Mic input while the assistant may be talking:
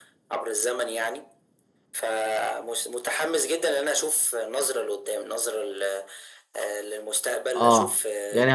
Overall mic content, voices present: both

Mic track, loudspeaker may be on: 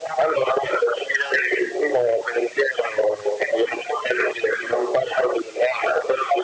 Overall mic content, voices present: echo only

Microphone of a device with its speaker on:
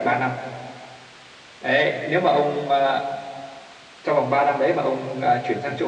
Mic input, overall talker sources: echo only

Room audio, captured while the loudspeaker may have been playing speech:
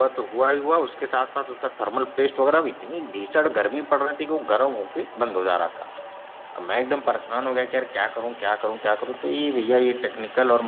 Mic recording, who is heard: echo only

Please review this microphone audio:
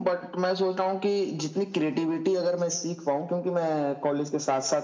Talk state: echo only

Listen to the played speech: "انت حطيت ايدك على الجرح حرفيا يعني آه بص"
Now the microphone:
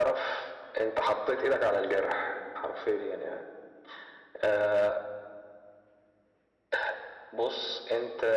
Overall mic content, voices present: echo only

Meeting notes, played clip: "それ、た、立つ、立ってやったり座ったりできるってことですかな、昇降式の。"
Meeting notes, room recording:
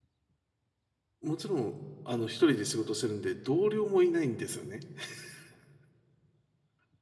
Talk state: user only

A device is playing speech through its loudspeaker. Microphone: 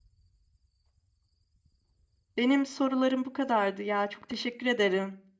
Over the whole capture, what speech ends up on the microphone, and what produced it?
user only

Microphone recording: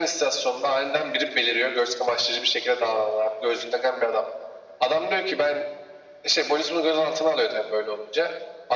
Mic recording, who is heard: echo only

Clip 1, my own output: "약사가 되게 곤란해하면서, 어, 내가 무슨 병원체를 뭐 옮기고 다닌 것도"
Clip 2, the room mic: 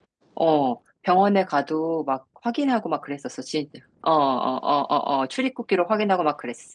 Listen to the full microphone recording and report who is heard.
user only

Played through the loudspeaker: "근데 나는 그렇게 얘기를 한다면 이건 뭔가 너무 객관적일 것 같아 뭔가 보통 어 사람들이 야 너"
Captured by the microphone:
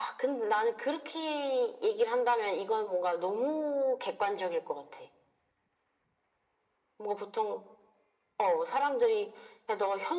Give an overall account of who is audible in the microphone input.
echo only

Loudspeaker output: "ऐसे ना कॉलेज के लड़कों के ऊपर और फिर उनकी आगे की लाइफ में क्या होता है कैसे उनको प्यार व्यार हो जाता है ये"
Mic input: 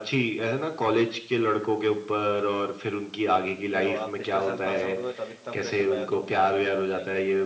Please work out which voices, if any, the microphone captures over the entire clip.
both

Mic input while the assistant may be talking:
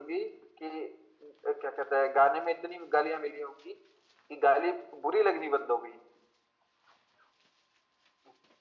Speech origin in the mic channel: echo only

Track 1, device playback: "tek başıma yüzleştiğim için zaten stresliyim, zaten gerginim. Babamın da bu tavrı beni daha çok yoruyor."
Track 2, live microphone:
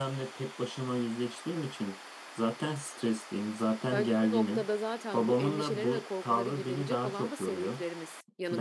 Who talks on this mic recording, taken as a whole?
both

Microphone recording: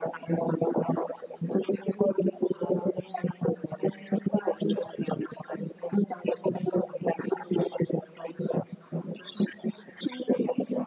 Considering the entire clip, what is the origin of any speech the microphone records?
echo only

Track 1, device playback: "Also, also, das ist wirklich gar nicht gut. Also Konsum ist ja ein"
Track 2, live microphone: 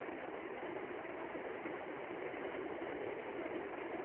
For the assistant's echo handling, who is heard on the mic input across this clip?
neither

